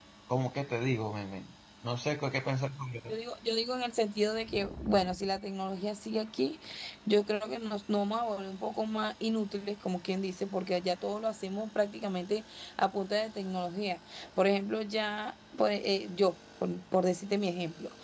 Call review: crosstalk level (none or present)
none